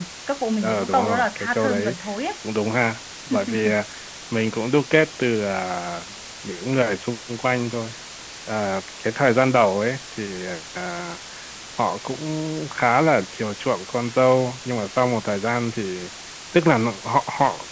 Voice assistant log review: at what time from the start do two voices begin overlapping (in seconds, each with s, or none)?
0.6 s